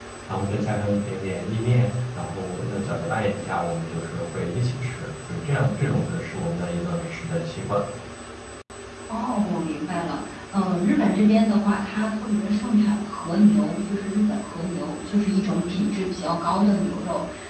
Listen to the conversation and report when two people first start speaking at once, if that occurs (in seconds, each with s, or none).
none